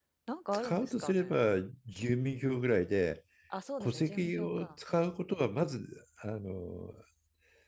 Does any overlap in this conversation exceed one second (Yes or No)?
Yes